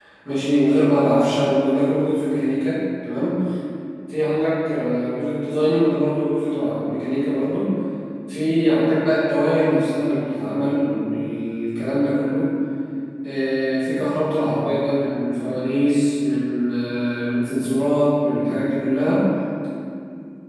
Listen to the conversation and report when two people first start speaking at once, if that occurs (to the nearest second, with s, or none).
none